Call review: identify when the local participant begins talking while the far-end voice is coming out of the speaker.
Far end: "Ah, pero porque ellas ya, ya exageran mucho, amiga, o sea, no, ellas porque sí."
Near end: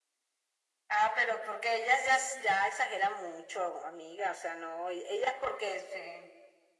none

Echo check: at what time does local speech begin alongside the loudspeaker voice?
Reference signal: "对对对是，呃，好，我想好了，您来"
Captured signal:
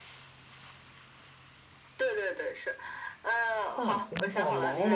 4 s

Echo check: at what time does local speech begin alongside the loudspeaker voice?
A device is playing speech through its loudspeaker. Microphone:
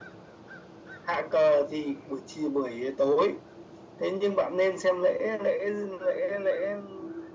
none

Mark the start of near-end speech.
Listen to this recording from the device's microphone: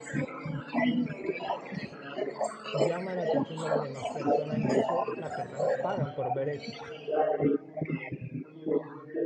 3 s

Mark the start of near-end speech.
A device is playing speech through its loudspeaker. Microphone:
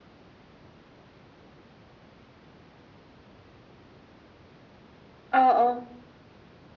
5 s

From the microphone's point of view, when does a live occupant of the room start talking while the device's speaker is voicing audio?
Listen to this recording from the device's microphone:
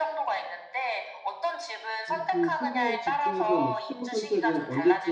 2 s

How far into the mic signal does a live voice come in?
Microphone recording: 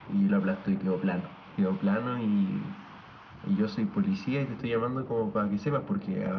none

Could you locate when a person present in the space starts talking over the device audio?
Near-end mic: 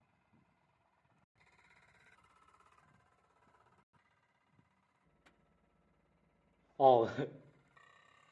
7 s

